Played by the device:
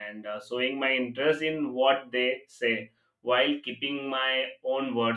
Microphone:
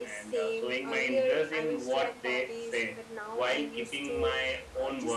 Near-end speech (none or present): present